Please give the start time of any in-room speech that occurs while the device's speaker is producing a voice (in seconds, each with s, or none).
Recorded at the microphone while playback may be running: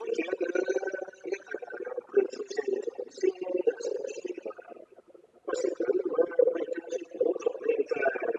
none